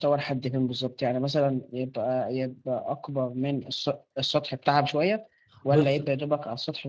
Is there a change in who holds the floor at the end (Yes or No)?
No